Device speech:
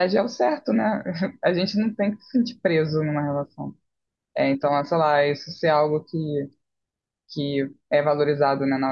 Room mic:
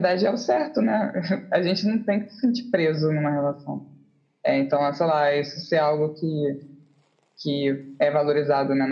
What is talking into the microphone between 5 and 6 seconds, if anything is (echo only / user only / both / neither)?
echo only